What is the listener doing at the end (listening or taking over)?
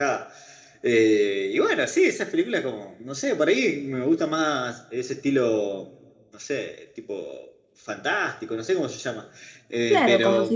taking over